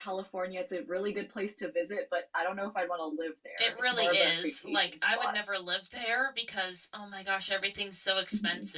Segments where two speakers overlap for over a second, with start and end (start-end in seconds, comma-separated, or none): 3.6-5.3